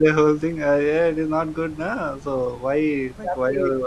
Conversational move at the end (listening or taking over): listening